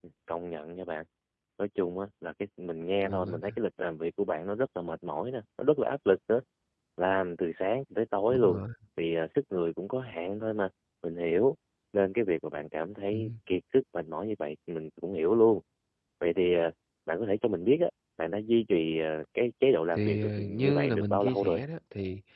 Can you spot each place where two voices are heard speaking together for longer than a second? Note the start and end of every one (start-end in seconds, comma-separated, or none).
19.9-21.6